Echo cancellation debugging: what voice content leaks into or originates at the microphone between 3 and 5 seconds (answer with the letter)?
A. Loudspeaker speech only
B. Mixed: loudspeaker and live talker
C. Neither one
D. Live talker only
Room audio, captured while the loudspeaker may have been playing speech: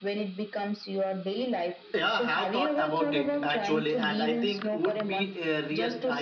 B